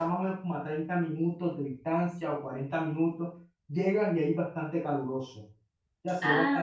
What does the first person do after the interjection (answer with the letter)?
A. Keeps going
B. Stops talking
A